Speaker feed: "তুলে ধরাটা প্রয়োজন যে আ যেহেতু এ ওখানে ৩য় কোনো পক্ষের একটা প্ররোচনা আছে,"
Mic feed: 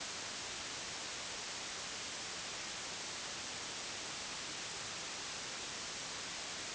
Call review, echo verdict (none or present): none